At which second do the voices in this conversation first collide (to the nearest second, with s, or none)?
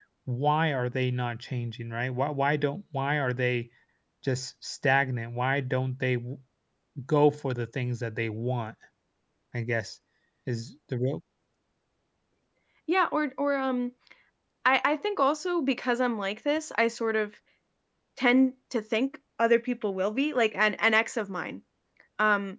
none